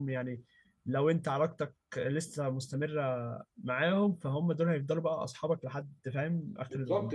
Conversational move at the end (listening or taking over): taking over